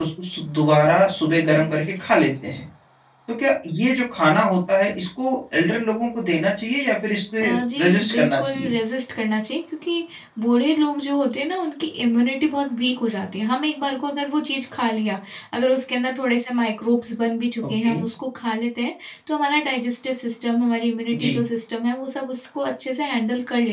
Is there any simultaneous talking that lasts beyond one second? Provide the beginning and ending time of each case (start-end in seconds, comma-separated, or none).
7.4-8.7